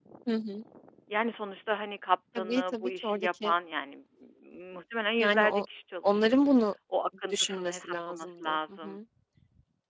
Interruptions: present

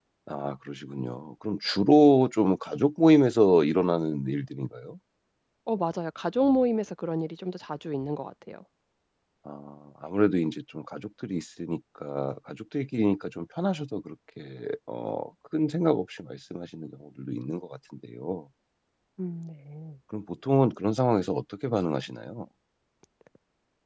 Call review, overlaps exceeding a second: none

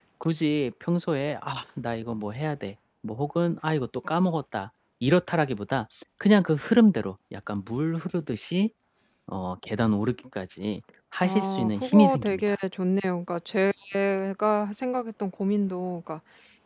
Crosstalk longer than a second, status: present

